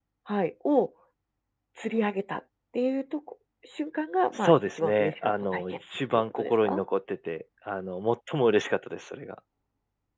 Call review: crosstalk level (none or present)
present